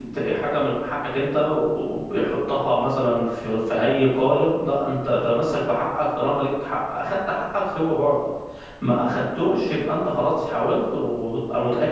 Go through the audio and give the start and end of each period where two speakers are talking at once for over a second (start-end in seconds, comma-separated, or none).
none